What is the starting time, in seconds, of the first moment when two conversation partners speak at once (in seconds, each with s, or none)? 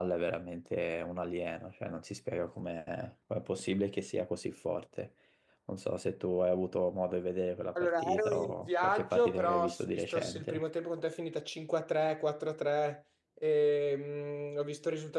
7.8 s